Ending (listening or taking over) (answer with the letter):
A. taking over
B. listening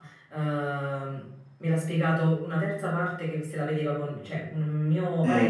B